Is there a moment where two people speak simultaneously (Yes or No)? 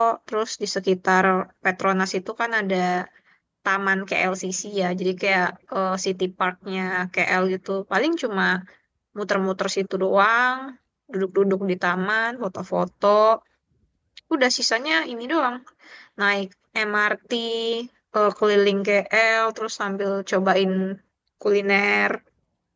No